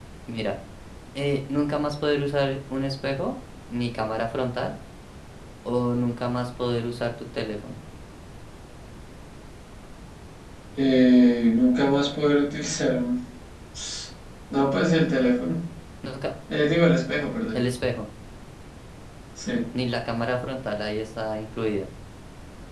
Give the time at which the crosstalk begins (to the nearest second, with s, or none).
none